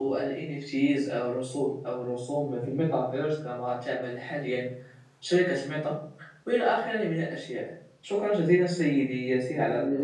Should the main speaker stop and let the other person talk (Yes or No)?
Yes